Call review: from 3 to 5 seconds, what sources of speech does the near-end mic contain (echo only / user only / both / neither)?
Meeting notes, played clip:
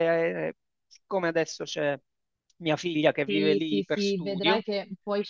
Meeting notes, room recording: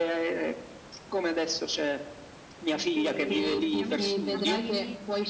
both